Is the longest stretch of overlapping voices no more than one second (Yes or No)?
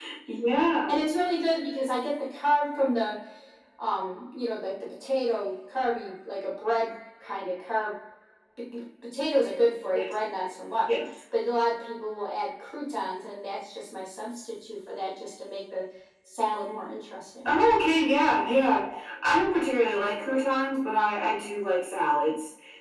Yes